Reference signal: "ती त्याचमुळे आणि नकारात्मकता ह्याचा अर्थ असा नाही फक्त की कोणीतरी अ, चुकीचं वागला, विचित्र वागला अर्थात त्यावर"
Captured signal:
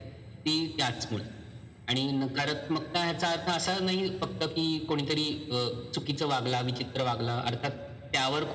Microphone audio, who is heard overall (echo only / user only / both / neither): echo only